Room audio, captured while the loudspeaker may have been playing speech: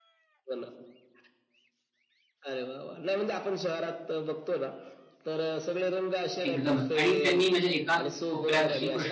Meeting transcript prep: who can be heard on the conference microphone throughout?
both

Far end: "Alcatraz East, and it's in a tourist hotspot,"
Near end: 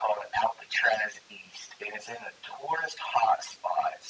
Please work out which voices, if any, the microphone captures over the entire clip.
echo only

